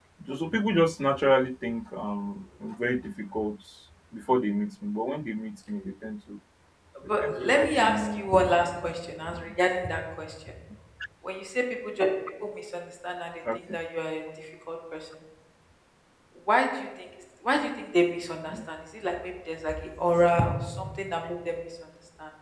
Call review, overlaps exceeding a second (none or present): present